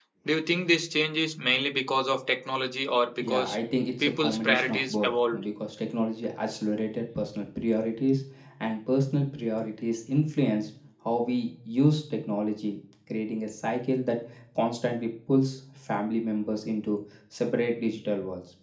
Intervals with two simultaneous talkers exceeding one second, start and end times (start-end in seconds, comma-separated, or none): 4.0-5.4